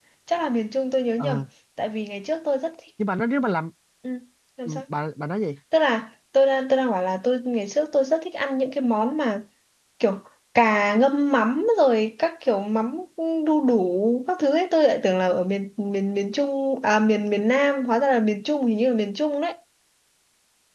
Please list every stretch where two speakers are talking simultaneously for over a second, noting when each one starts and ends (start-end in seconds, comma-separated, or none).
none